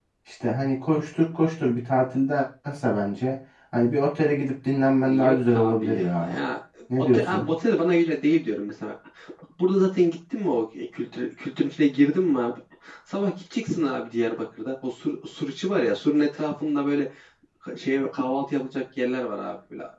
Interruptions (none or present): present